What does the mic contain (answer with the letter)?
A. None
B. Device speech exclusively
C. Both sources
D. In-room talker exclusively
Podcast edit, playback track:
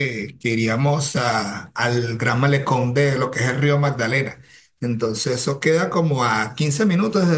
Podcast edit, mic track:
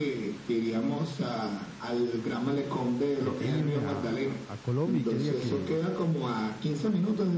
C